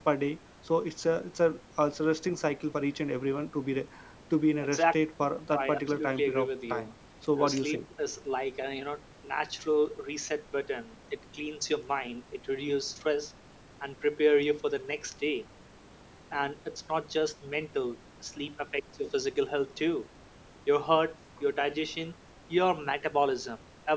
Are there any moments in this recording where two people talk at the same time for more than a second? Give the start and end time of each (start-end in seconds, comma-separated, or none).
5.6-6.9